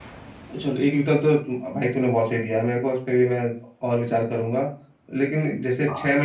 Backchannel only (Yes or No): Yes